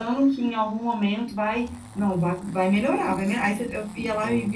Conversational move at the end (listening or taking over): listening